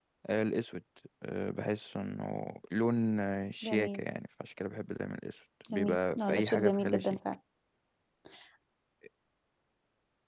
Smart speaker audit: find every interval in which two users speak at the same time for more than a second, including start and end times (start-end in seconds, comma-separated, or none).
5.7-7.2